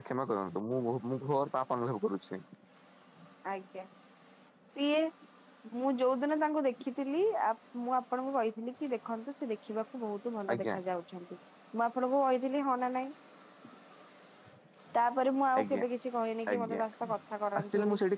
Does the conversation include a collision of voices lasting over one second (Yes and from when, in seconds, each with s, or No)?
No